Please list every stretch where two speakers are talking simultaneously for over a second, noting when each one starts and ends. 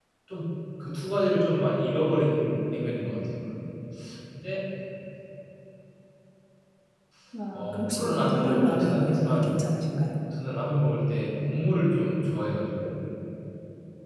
7.5-9.5

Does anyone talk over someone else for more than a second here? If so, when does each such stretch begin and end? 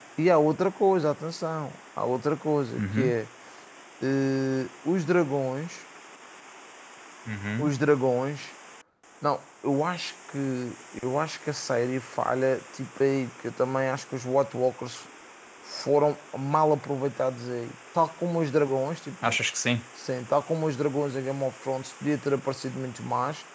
none

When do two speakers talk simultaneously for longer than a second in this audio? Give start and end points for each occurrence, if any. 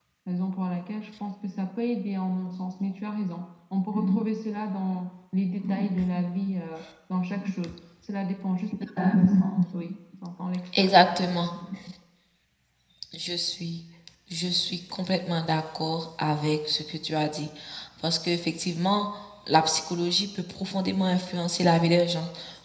none

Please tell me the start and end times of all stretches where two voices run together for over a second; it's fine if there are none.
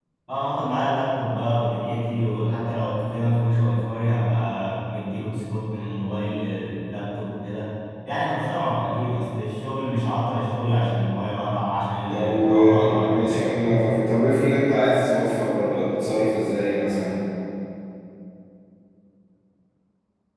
12.1-13.5

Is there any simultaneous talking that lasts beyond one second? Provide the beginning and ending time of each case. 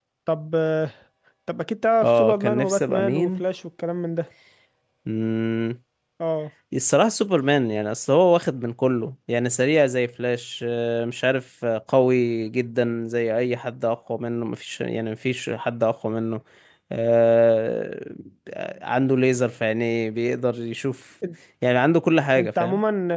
2.0-3.4

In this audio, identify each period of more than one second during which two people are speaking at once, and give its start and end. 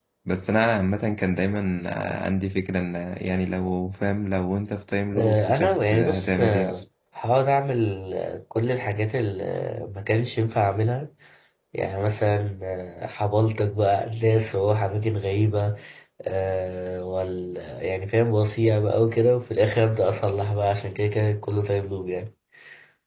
5.2-6.8

